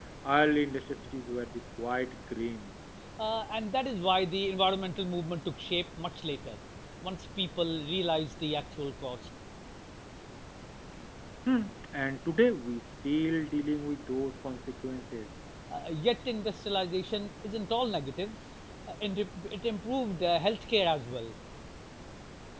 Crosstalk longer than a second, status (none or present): none